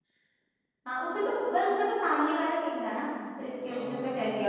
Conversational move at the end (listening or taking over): listening